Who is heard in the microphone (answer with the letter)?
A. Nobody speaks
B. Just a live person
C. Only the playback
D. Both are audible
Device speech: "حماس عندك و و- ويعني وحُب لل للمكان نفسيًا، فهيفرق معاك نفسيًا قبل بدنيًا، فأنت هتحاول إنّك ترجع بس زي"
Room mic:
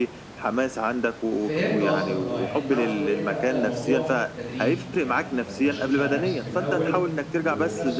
D